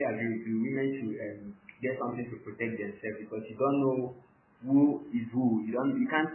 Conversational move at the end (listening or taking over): listening